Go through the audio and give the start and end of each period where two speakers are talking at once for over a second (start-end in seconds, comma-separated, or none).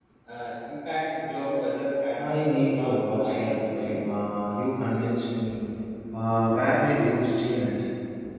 2.2-4.1